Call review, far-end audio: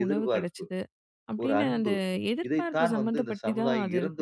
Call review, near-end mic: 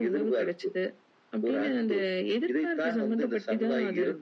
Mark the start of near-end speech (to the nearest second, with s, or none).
none